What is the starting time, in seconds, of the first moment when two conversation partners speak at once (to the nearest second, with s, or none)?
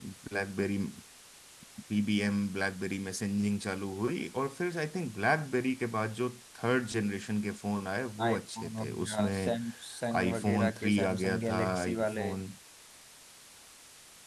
8 s